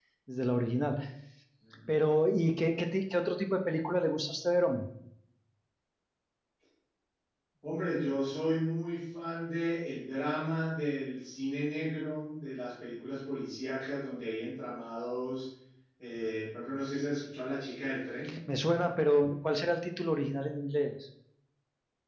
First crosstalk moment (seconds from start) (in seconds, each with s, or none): none